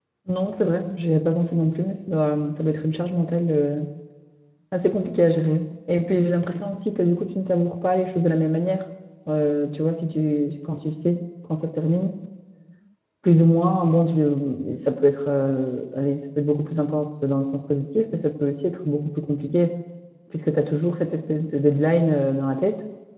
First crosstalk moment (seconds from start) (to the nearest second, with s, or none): none